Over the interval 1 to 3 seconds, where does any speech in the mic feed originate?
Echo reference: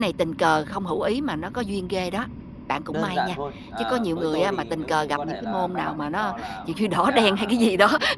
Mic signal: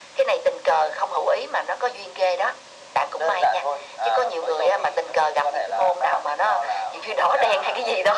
echo only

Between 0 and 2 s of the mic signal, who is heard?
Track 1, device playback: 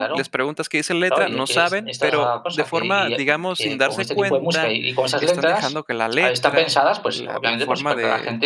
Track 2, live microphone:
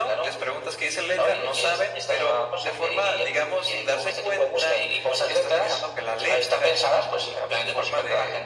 echo only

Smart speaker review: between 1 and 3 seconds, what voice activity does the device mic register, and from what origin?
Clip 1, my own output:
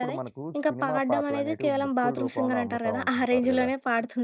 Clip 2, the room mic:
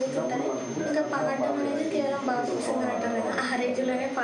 both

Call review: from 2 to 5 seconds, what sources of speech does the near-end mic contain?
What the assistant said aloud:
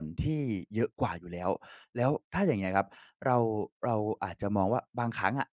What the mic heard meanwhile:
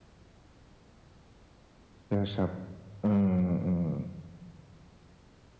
user only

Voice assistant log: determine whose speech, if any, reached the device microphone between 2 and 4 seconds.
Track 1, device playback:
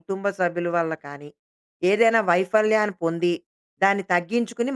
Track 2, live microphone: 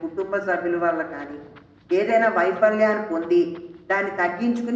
echo only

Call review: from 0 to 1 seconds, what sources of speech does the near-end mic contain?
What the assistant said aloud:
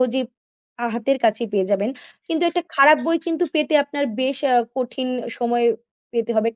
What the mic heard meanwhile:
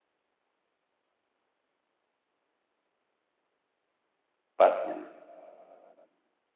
neither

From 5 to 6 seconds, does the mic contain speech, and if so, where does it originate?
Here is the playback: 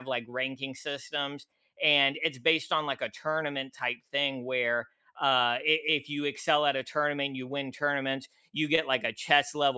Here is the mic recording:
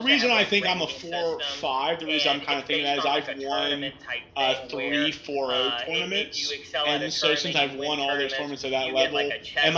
both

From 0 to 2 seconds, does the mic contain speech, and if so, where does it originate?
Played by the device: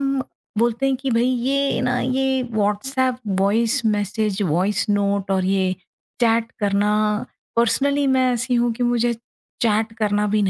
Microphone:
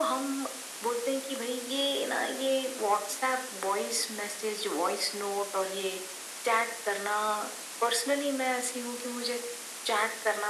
echo only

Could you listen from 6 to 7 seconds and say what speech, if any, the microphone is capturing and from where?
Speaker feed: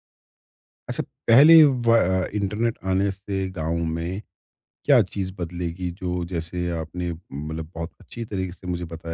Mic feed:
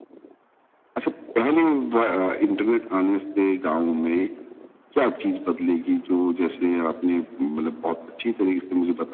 echo only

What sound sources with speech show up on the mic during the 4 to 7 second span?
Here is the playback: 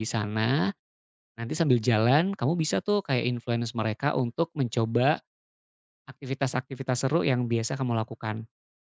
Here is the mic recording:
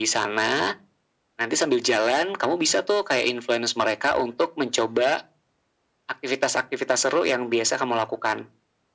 echo only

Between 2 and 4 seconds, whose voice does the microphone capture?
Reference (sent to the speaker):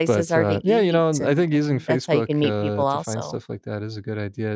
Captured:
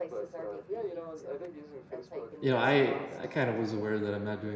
both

